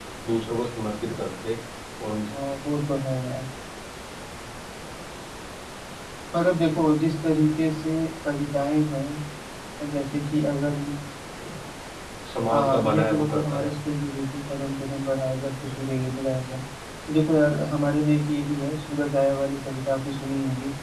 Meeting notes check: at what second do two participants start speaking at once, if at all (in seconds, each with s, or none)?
12.5 s